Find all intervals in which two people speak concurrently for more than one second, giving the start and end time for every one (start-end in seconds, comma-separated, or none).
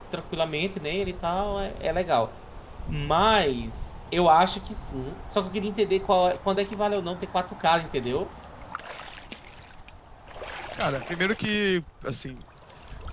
none